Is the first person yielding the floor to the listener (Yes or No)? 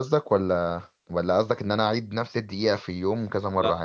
Yes